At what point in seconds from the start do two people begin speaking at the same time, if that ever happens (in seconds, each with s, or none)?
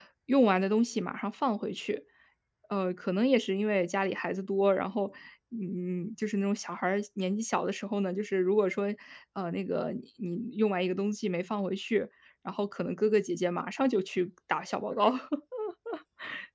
none